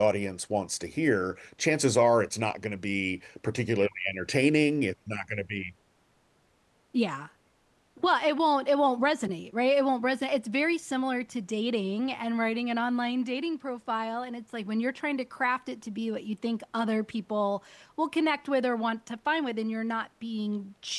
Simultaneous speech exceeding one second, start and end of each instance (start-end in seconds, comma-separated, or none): none